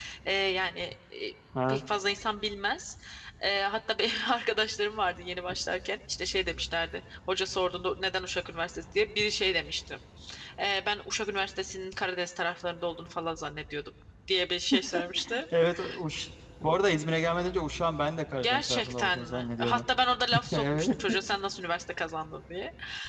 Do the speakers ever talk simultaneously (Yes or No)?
Yes